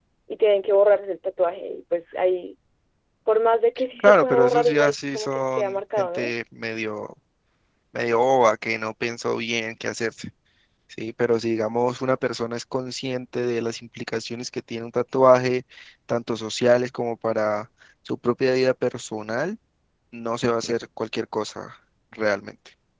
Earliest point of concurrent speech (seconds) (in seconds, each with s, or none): 4.0 s